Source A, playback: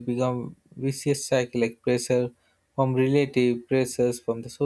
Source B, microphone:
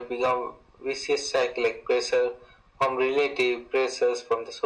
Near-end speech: none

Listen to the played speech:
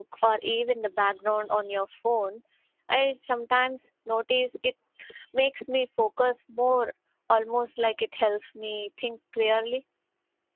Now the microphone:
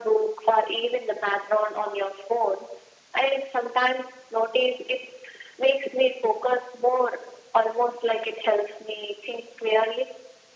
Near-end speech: none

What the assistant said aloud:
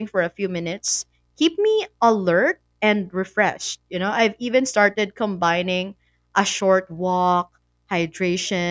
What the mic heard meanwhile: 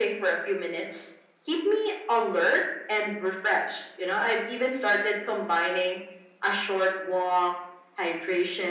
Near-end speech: none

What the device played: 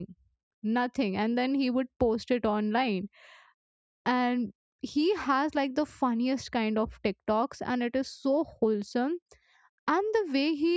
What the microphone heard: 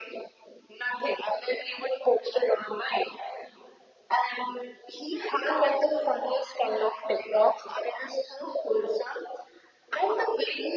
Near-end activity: none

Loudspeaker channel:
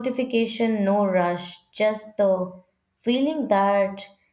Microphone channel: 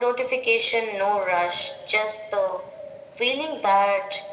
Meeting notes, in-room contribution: none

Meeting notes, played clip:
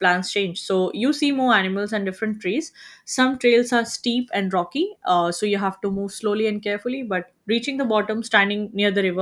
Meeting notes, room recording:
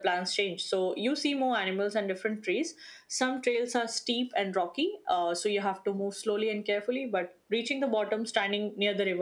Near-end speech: none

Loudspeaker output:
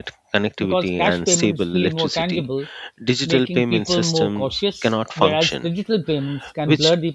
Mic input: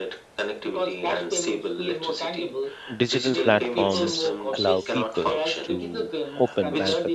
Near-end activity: present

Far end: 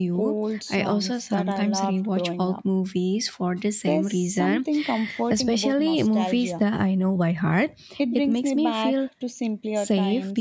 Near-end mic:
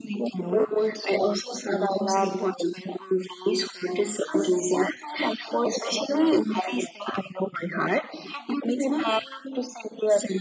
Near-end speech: none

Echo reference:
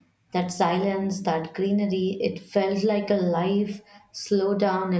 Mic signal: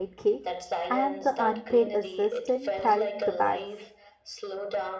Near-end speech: present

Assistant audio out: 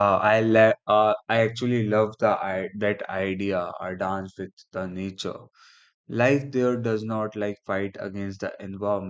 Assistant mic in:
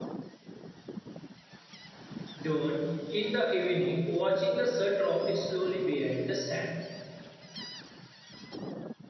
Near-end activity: present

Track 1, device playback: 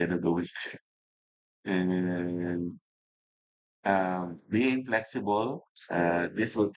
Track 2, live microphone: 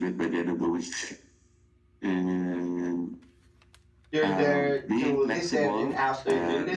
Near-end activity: present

